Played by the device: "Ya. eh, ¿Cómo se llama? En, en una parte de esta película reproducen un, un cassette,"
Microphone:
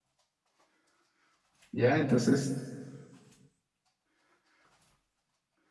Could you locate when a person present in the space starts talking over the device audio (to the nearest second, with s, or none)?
2 s